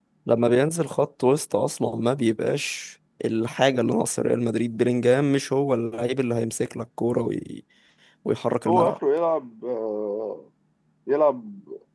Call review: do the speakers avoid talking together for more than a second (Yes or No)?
Yes